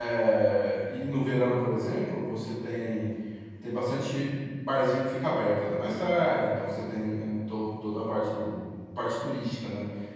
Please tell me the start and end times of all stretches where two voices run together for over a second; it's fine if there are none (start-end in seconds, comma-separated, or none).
none